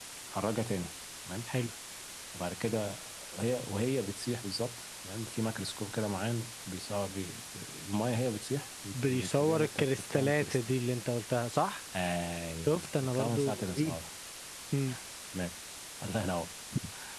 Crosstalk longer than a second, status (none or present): present